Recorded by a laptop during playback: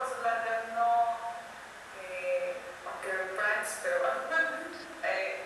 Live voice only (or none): none